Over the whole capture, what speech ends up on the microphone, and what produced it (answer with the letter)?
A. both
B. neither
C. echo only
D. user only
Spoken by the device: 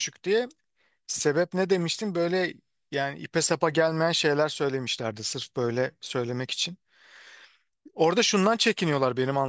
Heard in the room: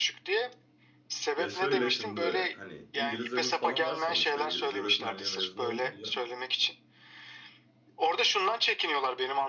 A